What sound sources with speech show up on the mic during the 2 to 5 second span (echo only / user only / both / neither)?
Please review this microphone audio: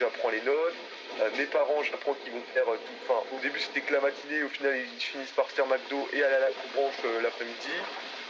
echo only